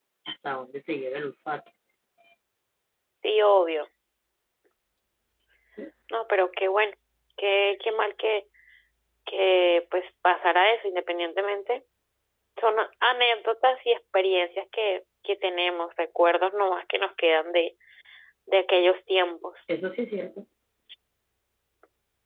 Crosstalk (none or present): none